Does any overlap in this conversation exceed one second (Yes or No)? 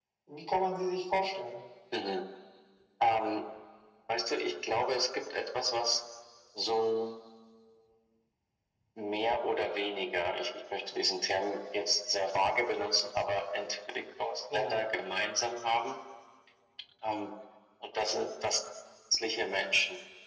No